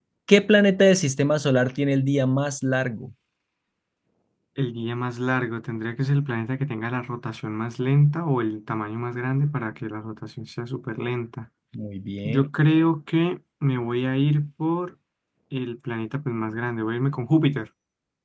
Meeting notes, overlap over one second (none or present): none